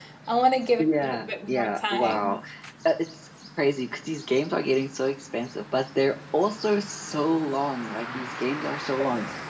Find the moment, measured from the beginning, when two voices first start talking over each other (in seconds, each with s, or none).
0.8 s